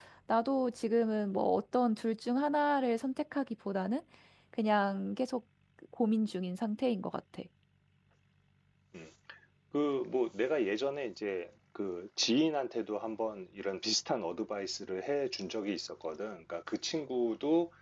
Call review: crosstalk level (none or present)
none